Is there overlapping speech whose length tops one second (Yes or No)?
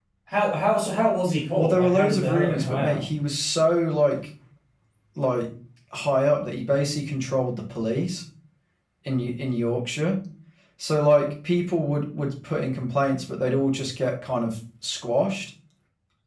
Yes